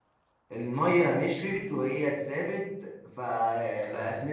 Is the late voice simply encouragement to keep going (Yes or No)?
Yes